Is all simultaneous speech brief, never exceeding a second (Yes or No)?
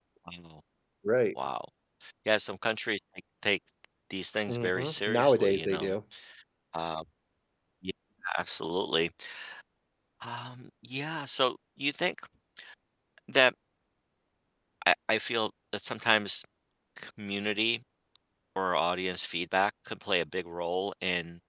No